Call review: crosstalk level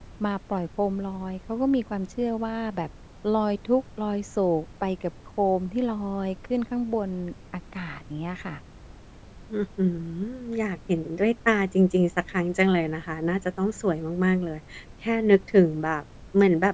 none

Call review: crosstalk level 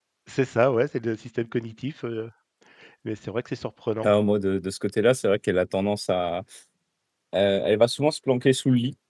none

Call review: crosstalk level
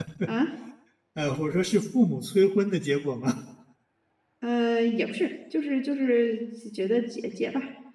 none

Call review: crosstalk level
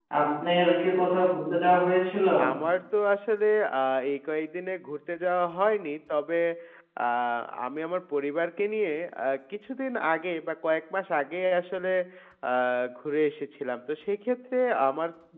none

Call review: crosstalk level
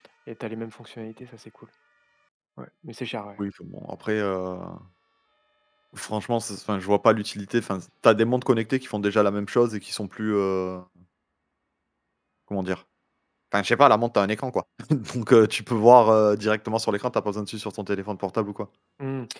none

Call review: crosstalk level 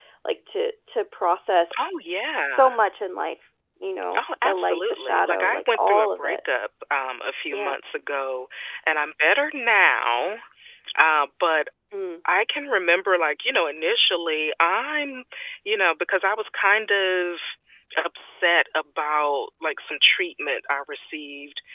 present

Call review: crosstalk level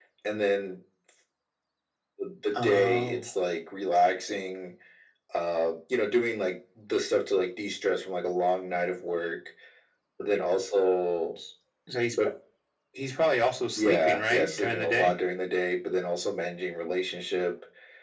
present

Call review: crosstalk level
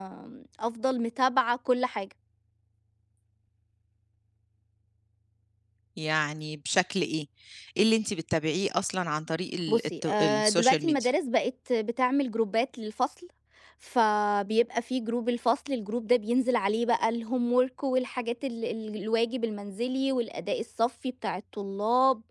present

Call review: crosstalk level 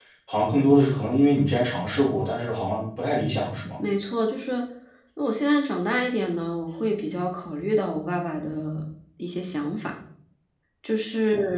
none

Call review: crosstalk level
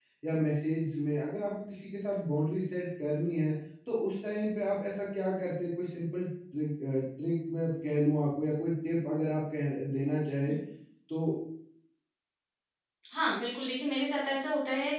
none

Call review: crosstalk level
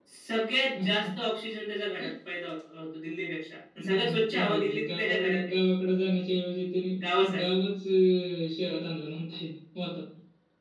present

